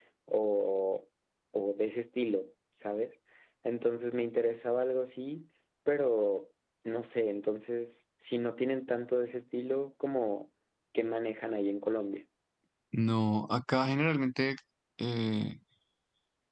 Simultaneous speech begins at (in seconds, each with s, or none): none